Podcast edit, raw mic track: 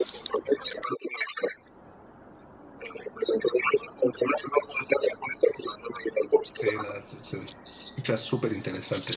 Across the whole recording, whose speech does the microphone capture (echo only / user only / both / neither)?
both